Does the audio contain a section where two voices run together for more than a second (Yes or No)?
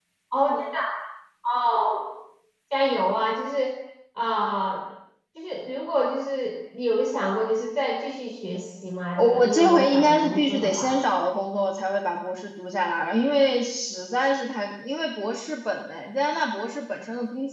Yes